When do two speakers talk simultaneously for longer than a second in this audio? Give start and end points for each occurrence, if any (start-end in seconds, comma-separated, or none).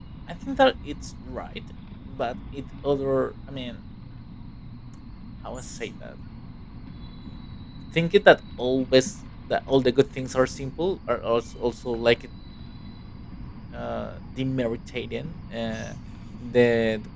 none